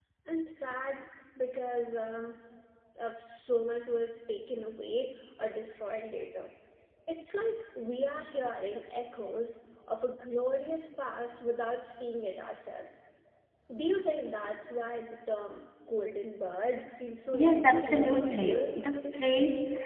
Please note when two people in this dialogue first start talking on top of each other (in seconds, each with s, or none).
17.3 s